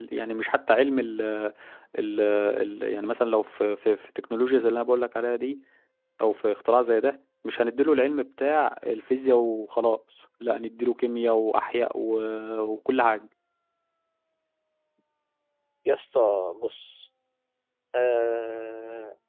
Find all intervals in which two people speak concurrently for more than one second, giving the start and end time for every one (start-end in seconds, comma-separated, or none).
none